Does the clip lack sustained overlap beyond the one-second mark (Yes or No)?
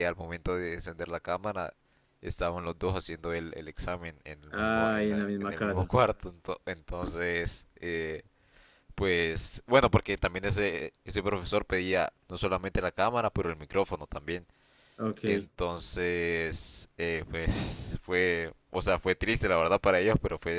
No